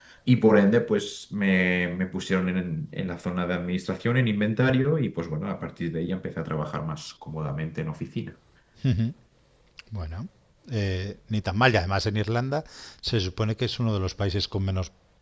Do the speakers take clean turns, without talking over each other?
Yes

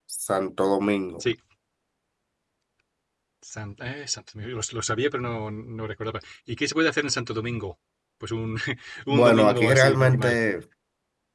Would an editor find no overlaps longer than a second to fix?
No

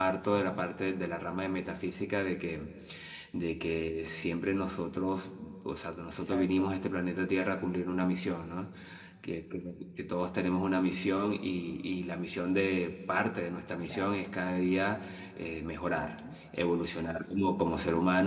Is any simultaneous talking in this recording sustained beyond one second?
No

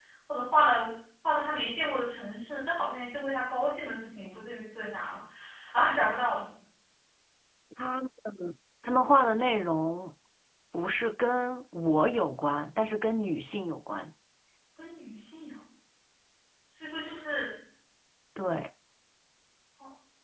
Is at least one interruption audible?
No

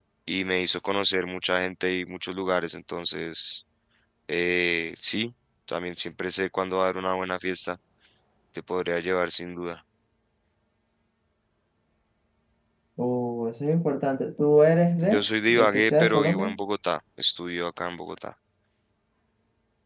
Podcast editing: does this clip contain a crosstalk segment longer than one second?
Yes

